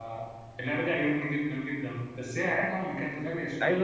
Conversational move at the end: taking over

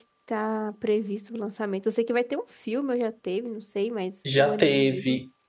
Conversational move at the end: taking over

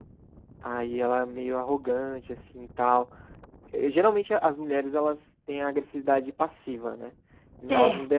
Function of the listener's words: listening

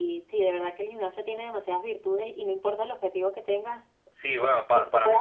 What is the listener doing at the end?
taking over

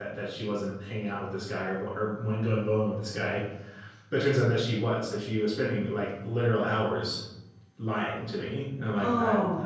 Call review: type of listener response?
taking over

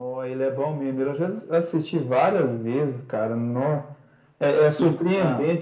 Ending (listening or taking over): listening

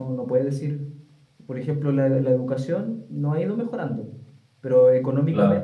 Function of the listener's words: listening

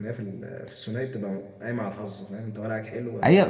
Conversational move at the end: taking over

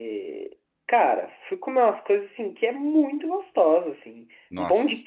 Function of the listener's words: listening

